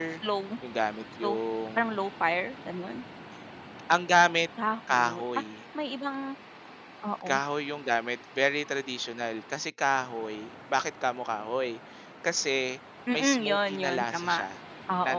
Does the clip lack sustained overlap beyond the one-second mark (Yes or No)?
No